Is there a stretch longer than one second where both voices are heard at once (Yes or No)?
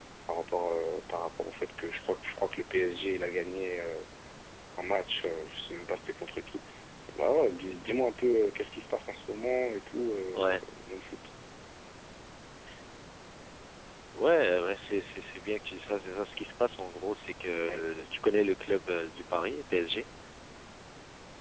No